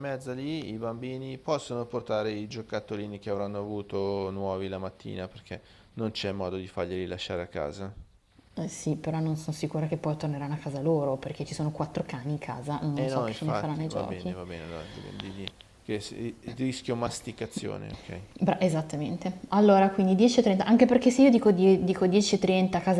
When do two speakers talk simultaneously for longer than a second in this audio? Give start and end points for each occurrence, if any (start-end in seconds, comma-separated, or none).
13.0-14.4